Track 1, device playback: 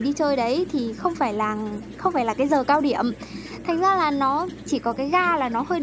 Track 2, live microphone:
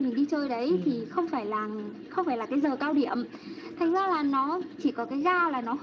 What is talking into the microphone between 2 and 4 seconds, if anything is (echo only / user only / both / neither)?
echo only